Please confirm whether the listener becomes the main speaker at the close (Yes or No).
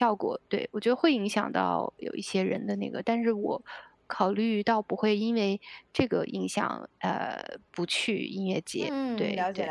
Yes